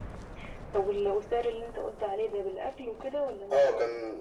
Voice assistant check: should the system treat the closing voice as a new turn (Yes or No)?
Yes